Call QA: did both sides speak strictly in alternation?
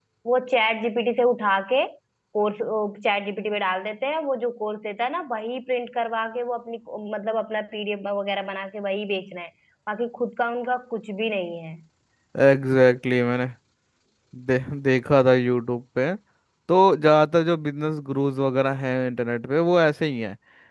Yes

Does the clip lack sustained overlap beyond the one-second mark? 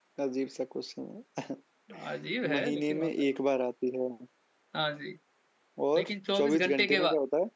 No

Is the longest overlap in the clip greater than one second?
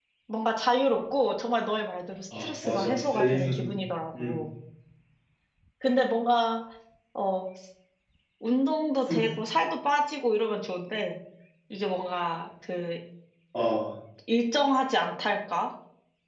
Yes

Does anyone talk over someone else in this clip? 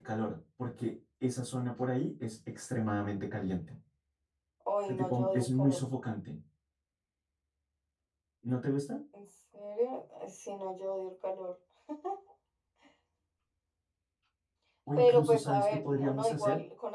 Yes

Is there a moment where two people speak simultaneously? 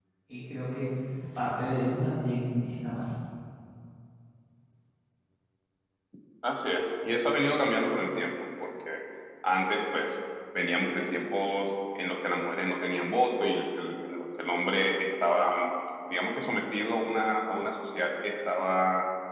No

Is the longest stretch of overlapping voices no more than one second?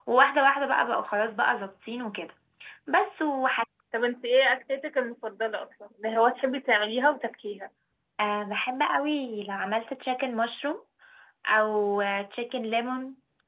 Yes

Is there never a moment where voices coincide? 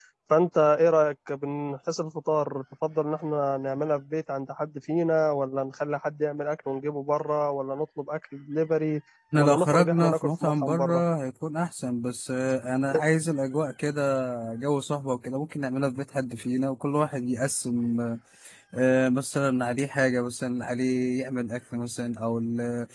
No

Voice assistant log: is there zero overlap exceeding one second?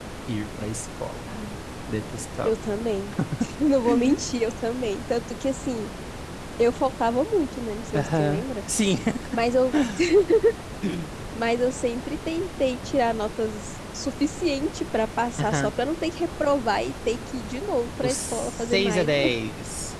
No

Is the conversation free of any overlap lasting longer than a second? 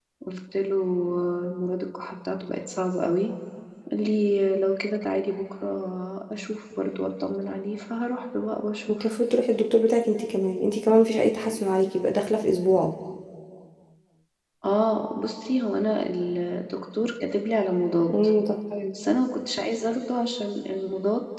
Yes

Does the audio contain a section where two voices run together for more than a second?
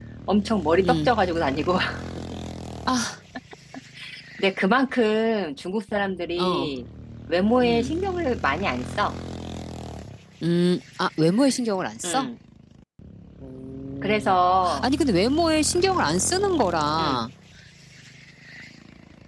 No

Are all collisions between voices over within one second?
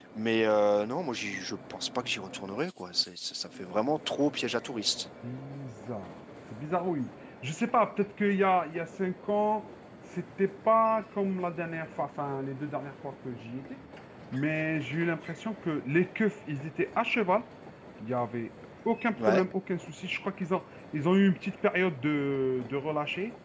Yes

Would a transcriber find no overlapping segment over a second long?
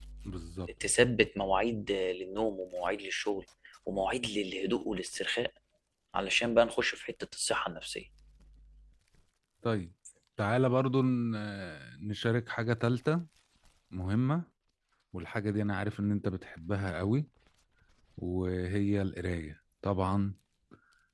Yes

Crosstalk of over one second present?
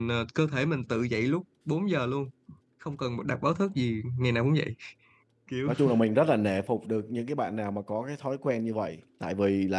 No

